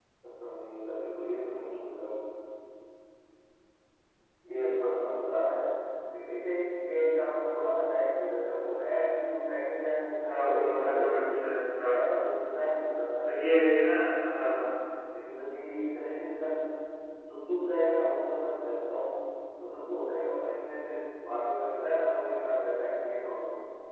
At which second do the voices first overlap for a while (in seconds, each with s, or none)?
10.3 s